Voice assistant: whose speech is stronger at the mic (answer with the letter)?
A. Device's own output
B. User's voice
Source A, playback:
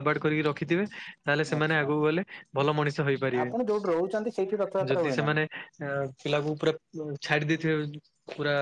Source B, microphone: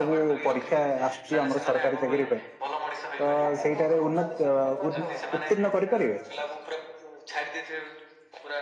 B